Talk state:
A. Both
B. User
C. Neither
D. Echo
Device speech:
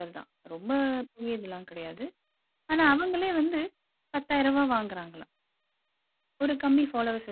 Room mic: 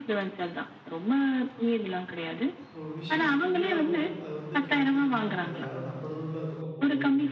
A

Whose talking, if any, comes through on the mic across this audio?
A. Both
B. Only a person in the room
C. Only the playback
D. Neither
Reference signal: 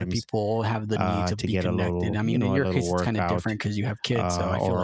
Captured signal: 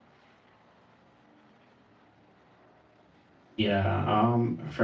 B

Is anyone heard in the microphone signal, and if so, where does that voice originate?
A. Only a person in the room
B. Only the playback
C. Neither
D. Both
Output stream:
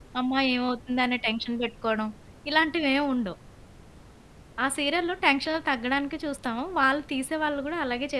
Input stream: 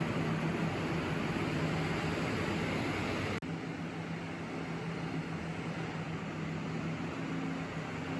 C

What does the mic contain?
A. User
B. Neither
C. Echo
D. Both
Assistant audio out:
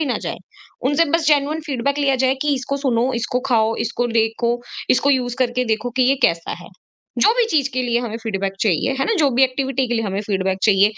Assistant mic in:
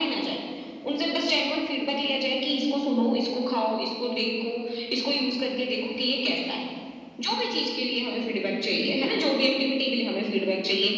C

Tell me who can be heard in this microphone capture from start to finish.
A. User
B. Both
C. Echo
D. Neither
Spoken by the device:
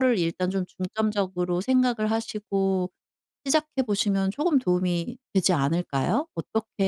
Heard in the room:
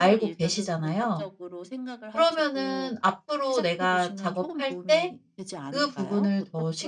B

